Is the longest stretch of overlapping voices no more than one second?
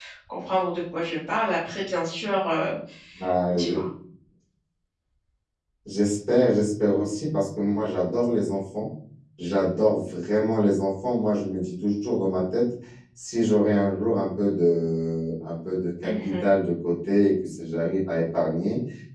Yes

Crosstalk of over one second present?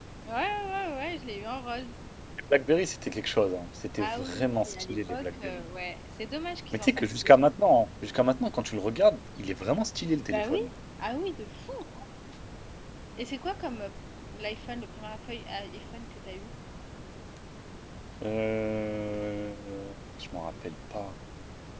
Yes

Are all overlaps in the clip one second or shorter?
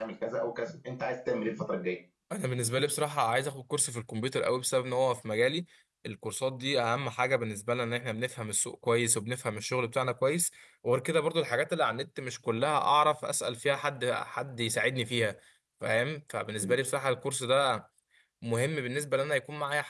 Yes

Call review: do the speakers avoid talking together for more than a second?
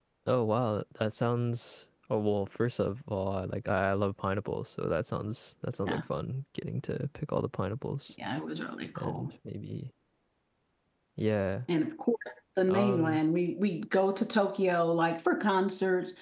Yes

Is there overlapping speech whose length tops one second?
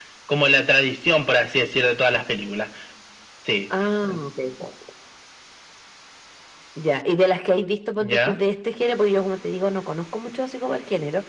No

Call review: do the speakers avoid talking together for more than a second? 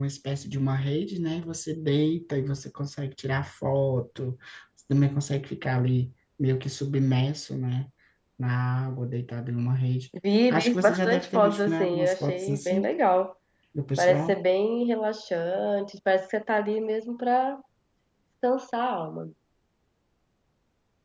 No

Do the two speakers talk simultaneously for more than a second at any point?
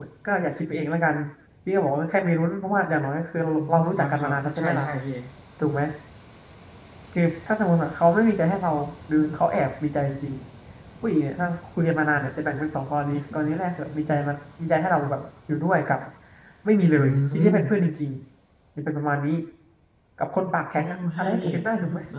Yes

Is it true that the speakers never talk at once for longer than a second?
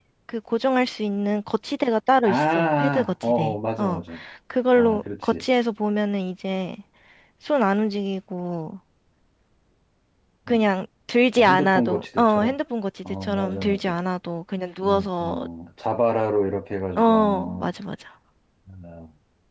No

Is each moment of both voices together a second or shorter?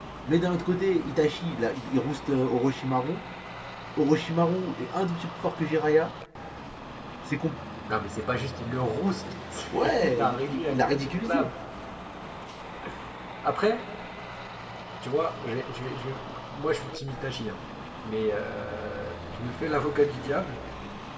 No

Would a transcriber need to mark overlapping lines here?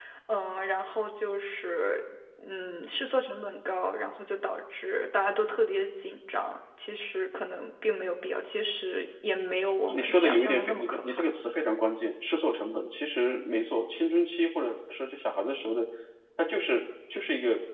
Yes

